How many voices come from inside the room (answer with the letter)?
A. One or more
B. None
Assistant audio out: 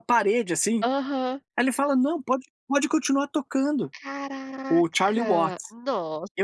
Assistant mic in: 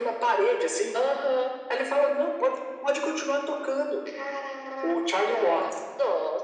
B